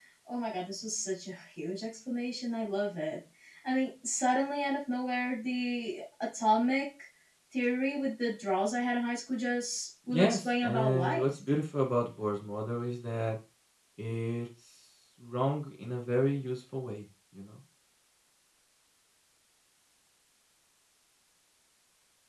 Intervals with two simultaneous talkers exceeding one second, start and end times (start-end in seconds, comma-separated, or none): 10.1-11.3